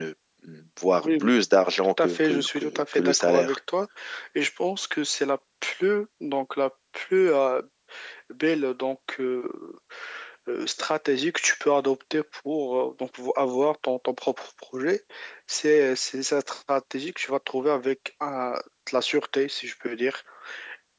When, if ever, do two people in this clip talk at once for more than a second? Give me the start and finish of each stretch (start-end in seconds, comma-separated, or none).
1.8-3.6